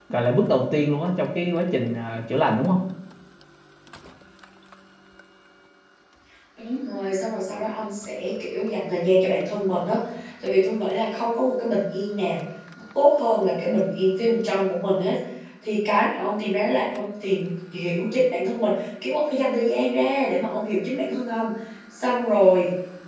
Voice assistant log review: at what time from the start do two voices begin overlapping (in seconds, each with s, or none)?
none